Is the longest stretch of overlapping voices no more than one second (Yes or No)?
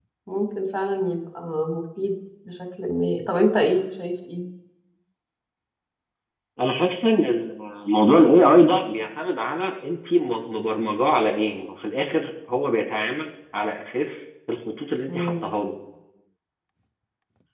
Yes